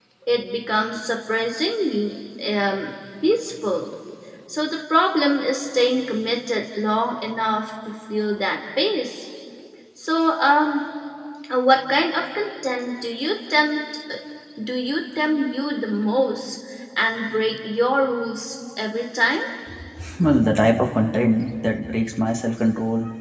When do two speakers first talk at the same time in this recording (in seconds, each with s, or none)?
none